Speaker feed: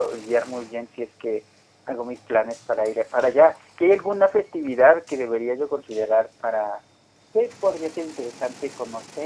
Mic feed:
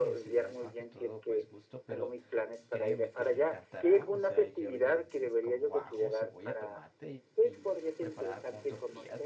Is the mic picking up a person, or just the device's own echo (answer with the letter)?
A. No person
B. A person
B